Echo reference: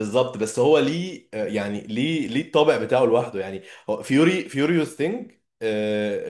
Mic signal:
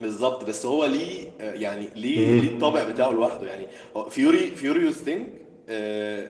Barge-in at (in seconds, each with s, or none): 2.2 s